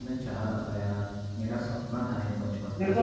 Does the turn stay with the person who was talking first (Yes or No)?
No